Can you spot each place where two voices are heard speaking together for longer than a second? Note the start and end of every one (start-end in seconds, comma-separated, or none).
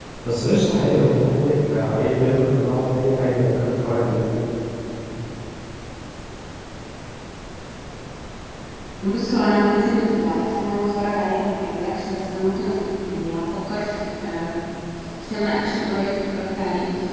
none